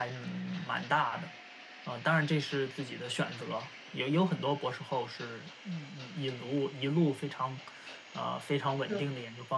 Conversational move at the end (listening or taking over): listening